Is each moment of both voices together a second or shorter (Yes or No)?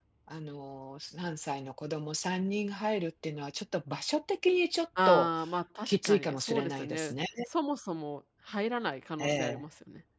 No